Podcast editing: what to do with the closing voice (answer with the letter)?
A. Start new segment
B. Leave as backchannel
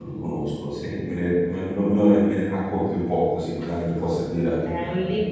A